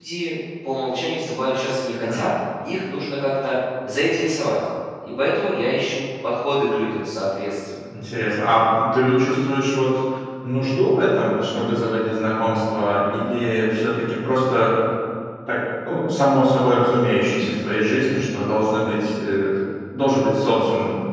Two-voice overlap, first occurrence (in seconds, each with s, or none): none